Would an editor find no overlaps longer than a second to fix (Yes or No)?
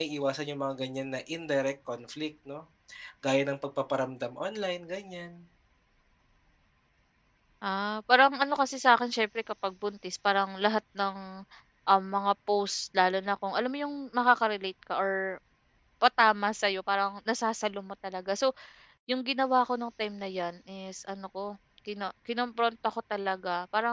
Yes